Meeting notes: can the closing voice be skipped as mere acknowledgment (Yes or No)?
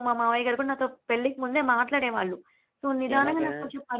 Yes